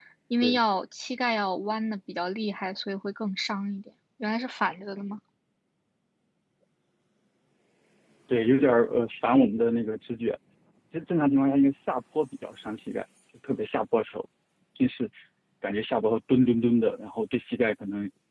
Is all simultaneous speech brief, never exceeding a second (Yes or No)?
Yes